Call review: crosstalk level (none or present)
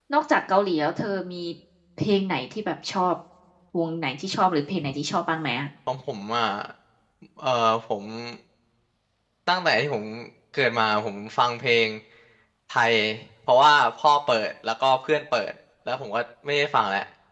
none